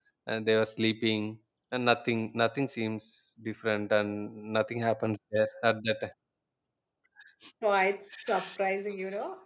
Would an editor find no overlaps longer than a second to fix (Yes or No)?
Yes